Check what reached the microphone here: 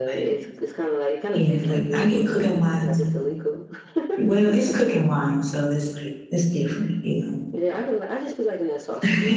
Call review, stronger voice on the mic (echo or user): user